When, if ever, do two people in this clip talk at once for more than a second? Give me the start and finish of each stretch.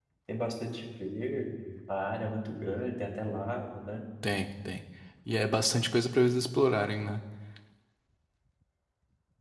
none

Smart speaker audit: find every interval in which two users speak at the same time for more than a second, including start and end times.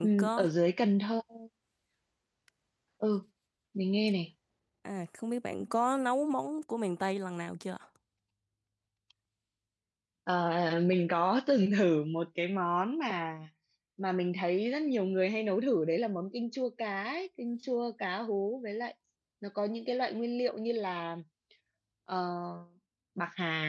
none

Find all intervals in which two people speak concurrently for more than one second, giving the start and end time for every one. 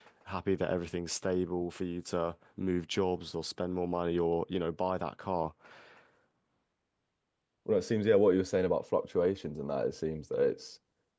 none

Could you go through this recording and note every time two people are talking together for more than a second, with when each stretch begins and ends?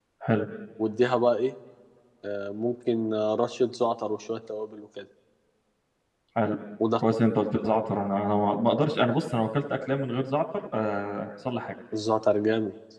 none

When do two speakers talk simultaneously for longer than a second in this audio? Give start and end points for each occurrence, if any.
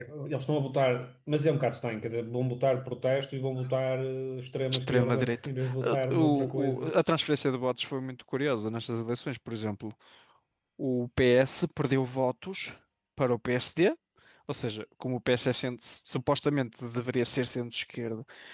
4.7-6.9

